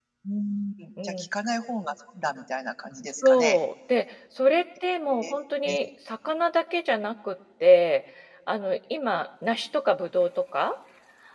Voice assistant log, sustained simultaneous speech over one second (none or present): none